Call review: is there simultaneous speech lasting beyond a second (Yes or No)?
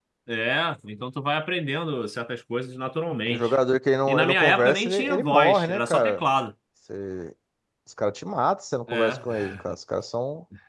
Yes